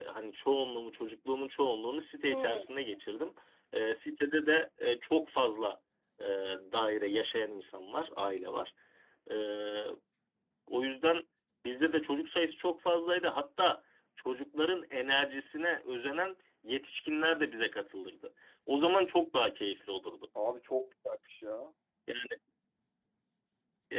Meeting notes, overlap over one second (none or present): none